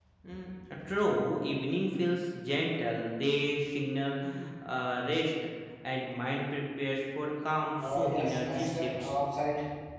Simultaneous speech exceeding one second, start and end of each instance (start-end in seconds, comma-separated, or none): 7.8-9.1